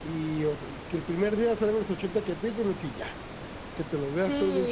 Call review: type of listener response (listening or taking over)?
taking over